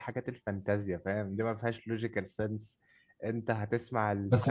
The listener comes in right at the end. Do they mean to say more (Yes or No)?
Yes